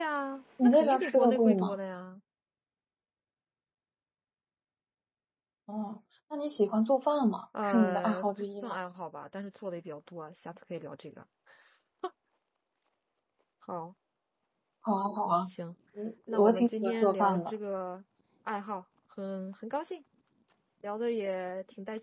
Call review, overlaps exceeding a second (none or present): present